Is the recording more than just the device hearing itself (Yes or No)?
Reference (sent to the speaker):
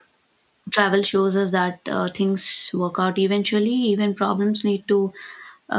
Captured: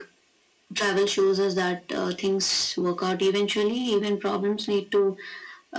No